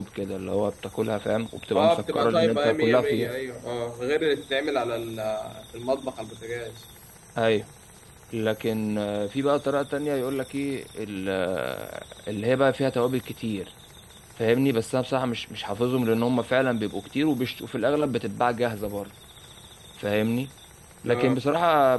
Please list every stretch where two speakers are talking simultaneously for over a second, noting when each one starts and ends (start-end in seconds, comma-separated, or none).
1.8-3.3